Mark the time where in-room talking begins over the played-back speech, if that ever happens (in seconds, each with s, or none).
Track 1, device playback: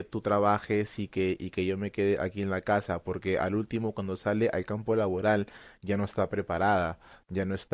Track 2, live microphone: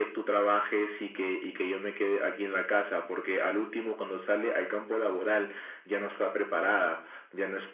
none